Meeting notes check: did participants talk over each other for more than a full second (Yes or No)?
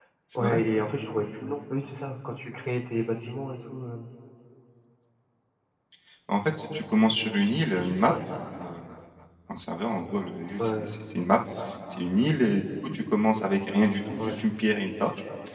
No